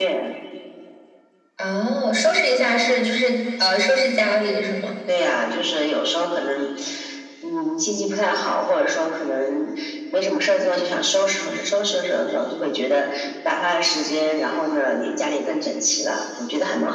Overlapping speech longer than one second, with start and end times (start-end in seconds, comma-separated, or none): none